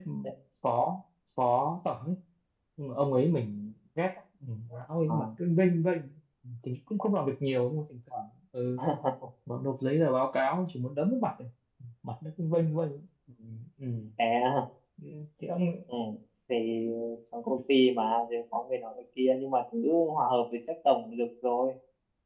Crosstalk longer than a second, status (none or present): none